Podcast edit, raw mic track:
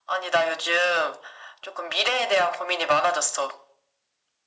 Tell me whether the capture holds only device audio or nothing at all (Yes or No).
Yes